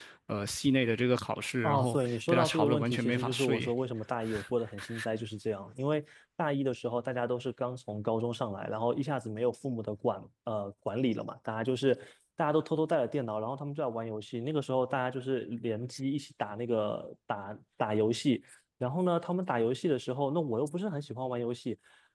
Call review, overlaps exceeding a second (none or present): present